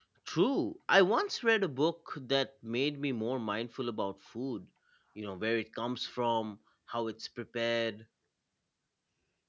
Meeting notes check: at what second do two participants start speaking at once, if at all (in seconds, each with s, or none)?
none